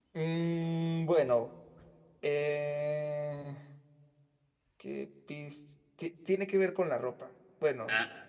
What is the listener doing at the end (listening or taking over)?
listening